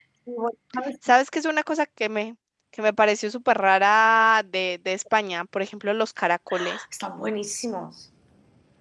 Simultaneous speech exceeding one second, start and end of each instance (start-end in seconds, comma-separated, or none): none